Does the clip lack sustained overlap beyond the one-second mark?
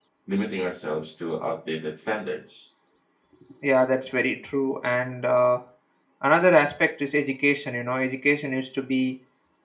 Yes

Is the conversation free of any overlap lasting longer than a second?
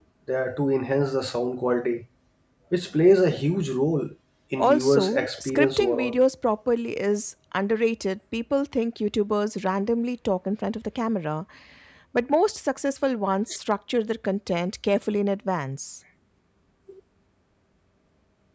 No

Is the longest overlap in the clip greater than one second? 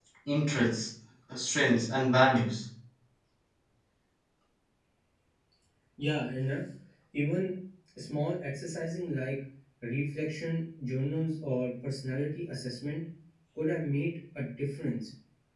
No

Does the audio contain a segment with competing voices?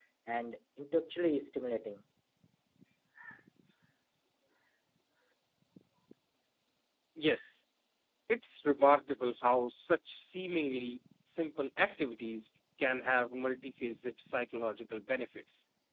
No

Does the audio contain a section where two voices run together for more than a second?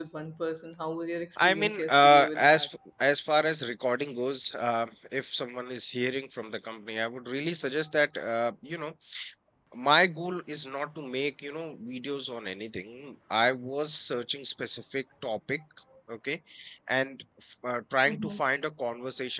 Yes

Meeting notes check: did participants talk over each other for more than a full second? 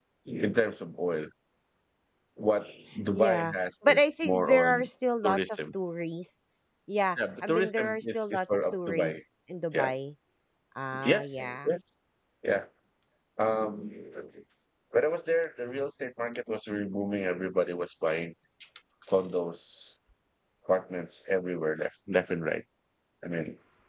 Yes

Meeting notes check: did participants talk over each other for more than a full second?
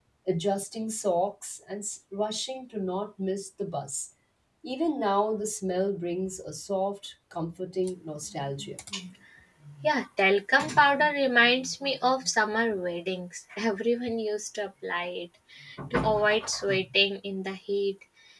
No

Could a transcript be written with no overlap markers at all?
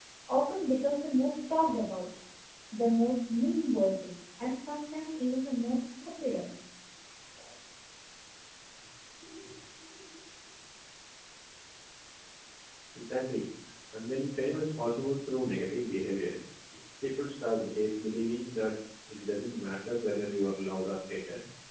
Yes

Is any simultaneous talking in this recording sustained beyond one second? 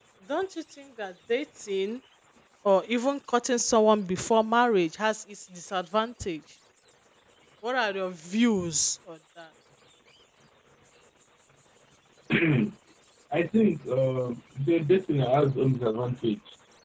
No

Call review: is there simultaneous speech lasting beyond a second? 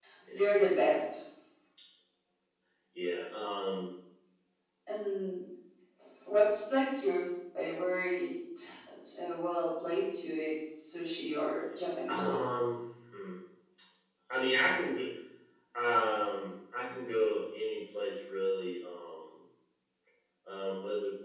No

